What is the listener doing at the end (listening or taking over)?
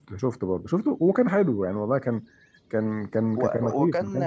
taking over